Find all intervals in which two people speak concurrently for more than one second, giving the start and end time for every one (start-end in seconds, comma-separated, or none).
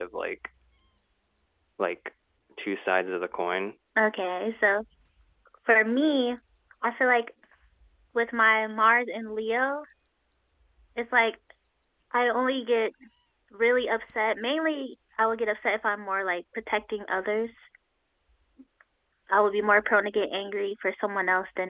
none